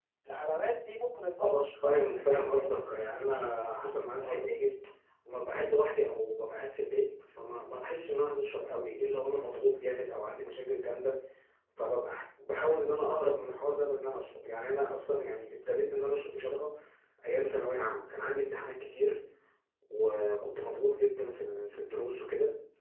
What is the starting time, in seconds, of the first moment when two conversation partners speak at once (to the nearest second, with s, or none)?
1 s